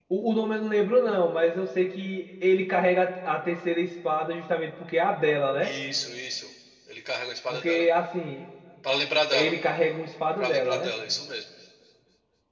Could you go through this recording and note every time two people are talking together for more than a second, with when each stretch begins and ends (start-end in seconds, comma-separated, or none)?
none